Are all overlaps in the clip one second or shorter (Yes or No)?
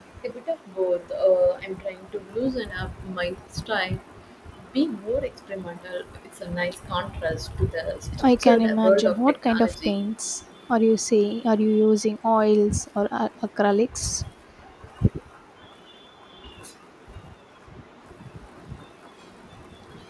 No